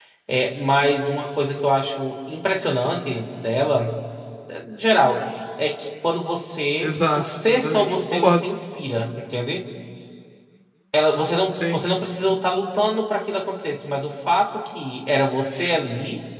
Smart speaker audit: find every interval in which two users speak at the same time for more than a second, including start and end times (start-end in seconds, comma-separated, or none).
6.8-8.4